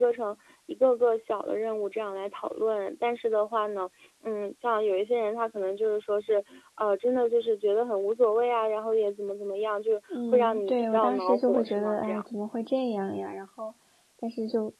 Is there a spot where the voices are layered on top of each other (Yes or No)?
Yes